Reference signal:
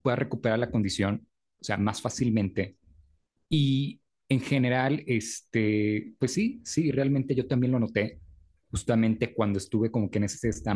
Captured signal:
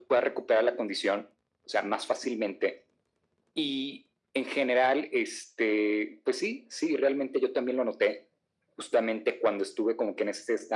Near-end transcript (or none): none